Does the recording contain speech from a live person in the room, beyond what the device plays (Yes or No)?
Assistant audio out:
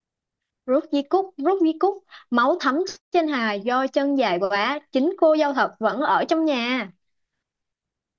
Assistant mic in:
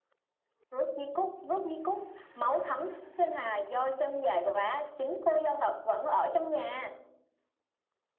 No